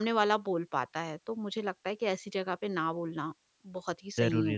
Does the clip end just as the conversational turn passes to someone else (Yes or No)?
Yes